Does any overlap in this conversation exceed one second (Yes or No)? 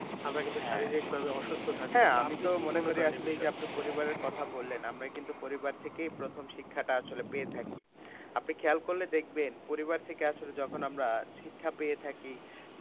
Yes